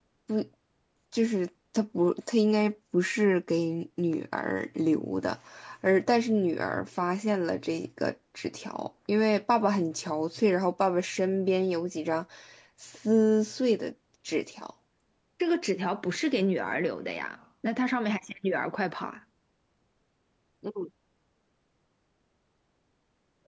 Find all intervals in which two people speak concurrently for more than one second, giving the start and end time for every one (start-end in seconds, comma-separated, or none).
none